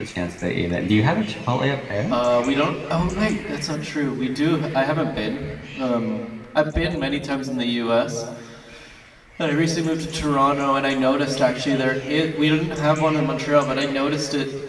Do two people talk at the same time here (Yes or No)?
No